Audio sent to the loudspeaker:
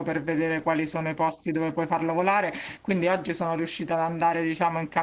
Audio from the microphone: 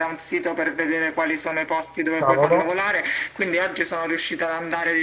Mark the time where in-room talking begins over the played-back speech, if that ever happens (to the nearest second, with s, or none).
2 s